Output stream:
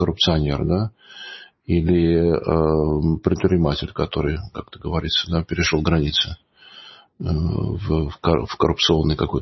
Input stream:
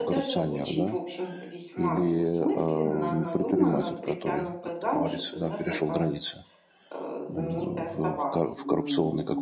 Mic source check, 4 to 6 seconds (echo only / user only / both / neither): both